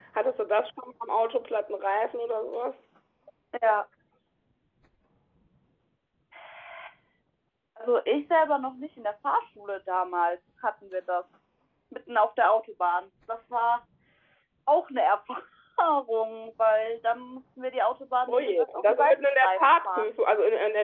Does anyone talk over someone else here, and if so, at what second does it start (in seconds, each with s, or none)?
18.3 s